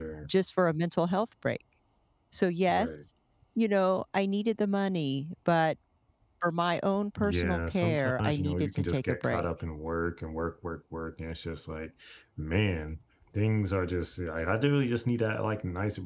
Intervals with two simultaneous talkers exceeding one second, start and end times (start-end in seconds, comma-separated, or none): 7.2-9.4